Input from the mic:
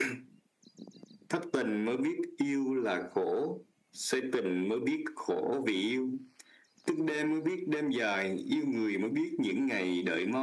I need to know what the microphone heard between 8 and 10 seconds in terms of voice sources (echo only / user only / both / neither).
echo only